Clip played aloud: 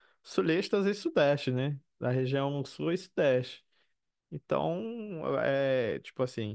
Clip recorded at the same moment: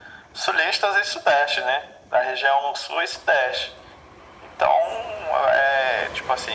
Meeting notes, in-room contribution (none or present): none